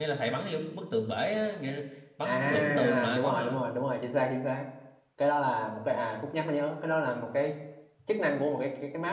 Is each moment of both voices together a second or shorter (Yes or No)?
No